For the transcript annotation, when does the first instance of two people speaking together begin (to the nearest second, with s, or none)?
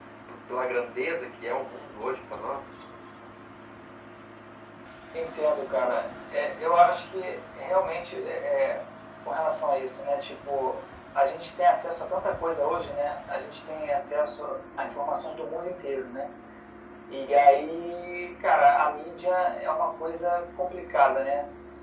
none